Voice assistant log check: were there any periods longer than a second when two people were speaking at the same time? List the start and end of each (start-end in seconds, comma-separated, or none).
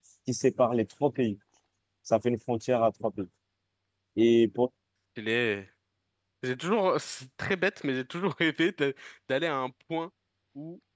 none